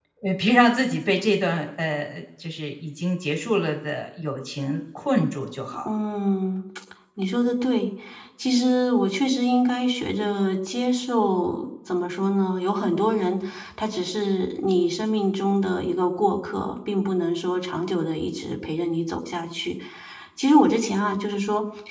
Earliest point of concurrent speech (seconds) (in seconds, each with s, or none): none